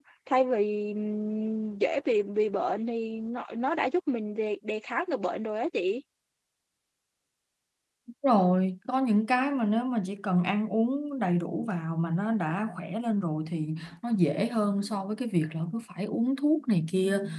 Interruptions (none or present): none